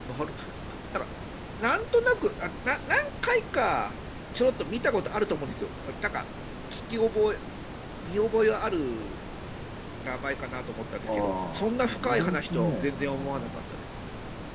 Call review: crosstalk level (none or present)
present